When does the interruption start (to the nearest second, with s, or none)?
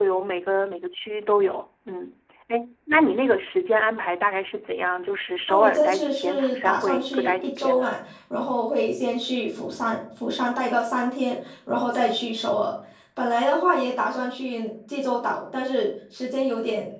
5 s